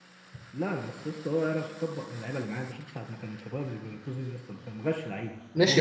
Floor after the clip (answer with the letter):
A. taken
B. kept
A